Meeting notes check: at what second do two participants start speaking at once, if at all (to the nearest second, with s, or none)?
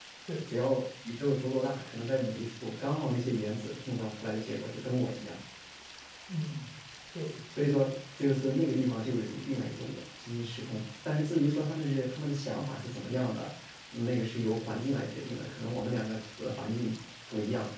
none